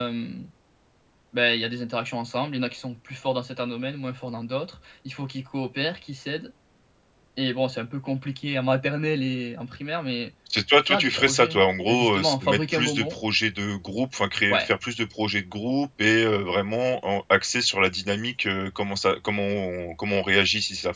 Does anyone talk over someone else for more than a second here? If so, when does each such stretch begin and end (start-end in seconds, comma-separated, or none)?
10.8-13.1